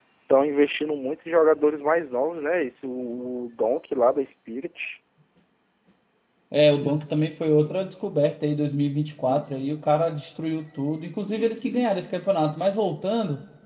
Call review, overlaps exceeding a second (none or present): none